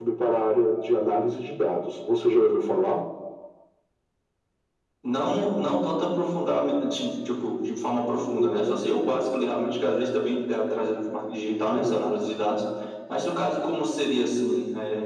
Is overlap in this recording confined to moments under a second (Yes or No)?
Yes